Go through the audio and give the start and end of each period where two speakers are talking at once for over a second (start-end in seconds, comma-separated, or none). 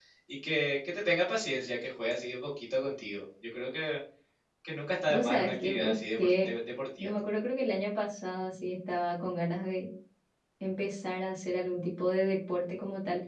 5.1-6.5